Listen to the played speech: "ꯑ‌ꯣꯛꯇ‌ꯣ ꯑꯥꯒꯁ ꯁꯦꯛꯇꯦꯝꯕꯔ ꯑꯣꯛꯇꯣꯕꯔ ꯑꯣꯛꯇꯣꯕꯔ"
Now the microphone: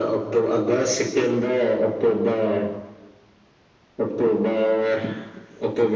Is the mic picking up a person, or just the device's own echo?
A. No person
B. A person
A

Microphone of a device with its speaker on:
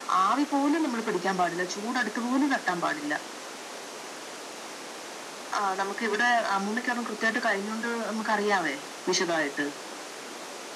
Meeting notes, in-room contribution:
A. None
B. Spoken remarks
A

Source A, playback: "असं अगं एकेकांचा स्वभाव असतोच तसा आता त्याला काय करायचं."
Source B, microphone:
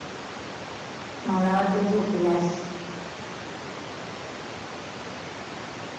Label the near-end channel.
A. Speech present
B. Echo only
A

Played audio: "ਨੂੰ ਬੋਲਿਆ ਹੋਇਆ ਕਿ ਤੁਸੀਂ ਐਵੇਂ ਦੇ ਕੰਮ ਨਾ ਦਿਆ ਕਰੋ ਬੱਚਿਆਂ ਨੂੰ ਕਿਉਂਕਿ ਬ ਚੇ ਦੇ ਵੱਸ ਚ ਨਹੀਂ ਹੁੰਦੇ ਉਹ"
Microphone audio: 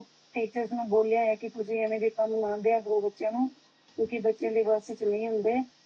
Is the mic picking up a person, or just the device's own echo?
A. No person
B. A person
A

